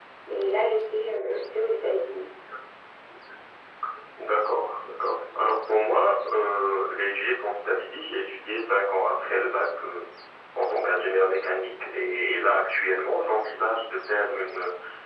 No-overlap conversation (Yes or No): Yes